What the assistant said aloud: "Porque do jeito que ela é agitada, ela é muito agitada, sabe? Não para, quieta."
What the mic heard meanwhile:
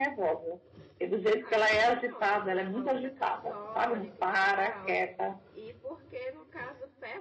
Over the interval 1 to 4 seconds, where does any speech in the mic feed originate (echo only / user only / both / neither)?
both